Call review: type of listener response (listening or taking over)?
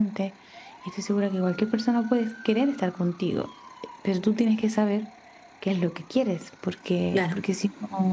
listening